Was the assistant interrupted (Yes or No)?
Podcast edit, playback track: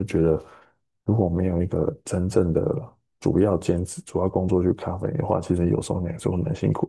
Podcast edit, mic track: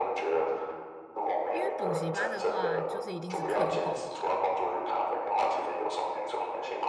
Yes